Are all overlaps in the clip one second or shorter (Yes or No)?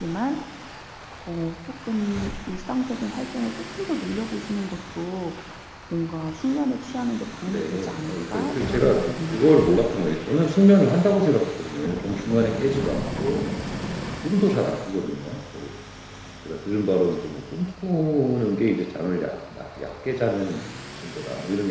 No